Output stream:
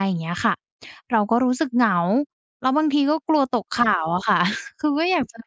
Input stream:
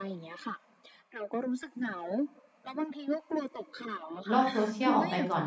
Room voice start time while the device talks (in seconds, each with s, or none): 4.3 s